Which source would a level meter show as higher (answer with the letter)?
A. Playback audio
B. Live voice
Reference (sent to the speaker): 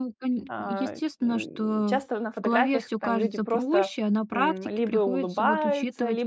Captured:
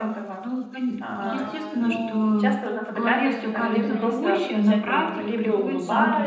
A